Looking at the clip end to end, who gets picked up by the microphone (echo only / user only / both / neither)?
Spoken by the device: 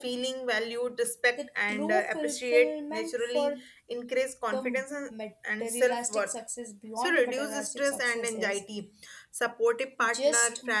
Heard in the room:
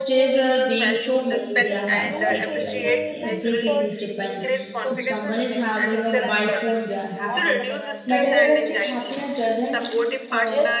both